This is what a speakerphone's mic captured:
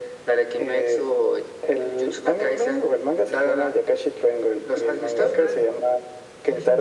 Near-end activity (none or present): present